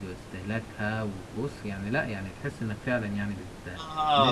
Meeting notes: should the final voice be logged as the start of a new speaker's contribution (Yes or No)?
Yes